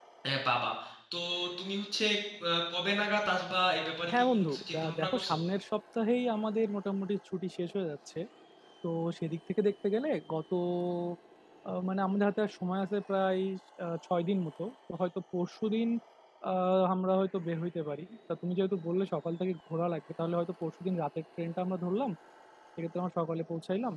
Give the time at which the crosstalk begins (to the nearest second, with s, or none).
4 s